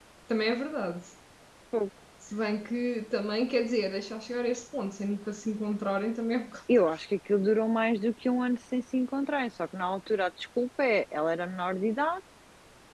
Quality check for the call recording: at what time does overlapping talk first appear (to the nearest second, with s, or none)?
none